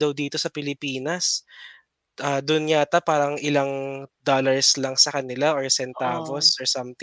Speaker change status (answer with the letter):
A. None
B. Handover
A